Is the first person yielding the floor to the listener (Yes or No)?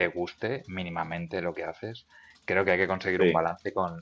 No